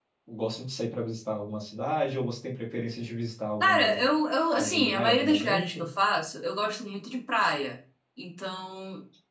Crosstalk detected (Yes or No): Yes